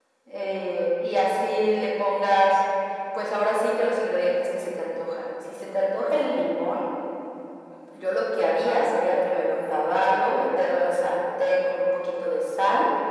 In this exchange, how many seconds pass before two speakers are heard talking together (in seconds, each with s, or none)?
none